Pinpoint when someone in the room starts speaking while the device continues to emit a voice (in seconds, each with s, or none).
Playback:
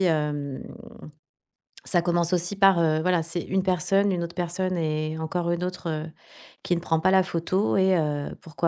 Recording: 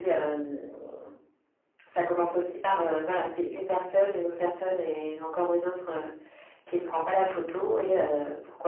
none